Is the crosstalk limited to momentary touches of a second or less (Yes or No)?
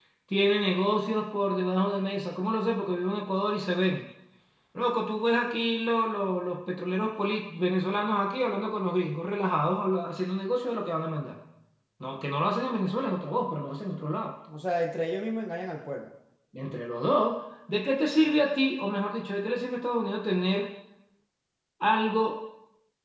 Yes